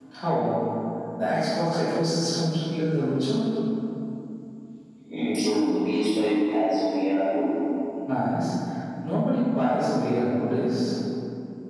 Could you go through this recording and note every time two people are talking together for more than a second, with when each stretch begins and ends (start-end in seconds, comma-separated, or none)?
none